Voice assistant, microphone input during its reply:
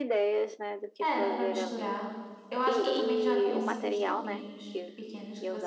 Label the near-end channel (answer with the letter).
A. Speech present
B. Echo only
A